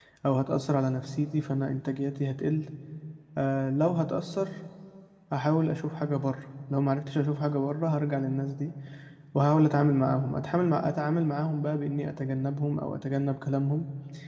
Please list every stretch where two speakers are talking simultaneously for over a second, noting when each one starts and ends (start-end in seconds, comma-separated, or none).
none